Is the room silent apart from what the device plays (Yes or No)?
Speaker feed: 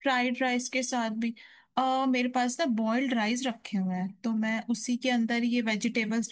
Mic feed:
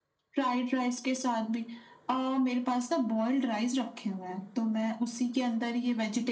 Yes